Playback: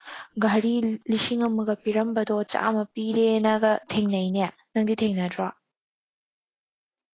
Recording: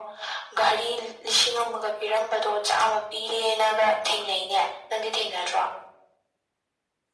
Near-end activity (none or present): none